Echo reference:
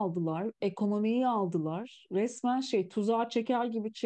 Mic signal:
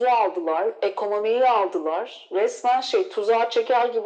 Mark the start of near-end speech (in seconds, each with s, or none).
none